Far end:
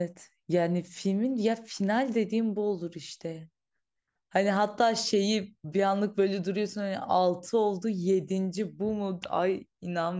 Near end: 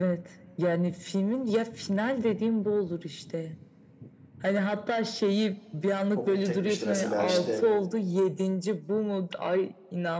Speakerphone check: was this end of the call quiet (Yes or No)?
No